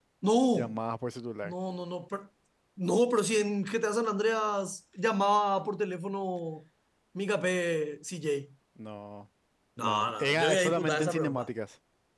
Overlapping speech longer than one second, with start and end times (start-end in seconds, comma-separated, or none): 9.8-11.5